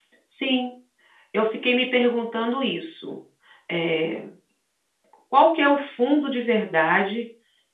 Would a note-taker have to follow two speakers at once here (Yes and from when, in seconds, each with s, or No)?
No